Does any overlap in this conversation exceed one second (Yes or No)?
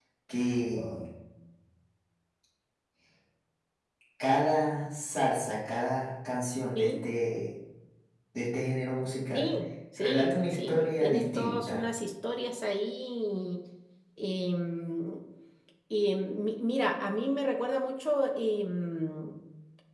Yes